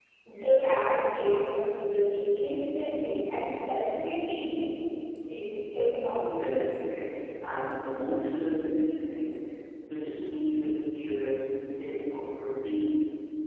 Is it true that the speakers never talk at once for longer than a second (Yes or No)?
Yes